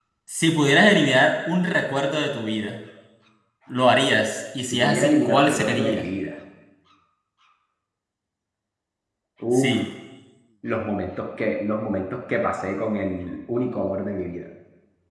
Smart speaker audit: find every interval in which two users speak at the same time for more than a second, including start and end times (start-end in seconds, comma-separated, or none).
4.7-6.0